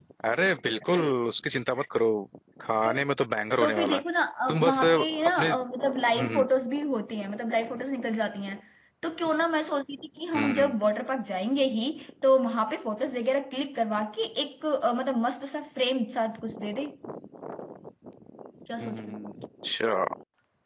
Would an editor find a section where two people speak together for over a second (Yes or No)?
No